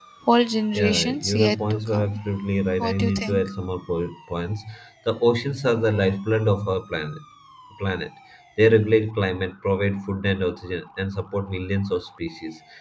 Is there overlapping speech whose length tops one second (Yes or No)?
Yes